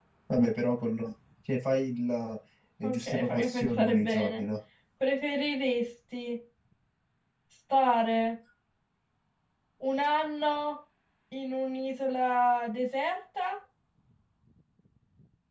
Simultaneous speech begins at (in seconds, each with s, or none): 2.8 s